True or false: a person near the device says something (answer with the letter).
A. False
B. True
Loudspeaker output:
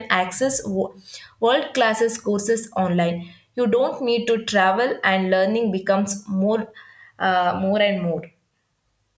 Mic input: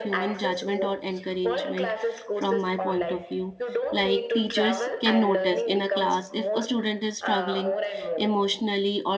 B